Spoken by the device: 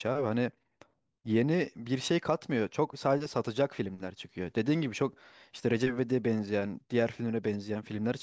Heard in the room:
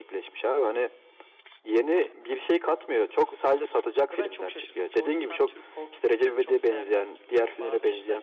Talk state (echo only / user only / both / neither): both